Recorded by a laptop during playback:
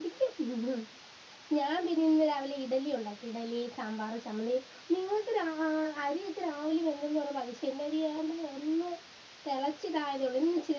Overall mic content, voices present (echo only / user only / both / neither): user only